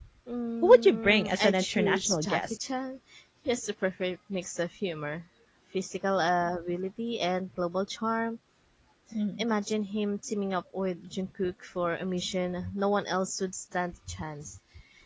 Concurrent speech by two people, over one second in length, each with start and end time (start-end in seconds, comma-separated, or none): 0.6-2.5